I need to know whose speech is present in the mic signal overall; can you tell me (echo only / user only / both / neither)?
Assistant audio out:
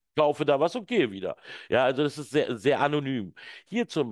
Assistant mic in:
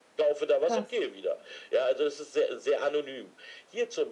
both